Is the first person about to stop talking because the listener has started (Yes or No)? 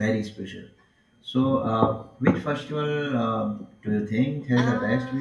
Yes